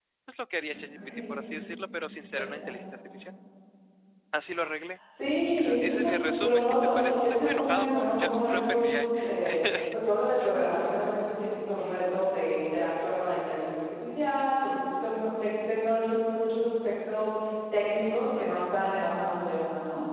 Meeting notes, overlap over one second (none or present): present